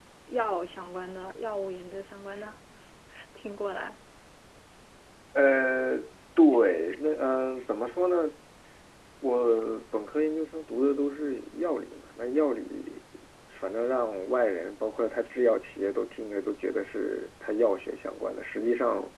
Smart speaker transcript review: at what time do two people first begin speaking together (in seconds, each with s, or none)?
none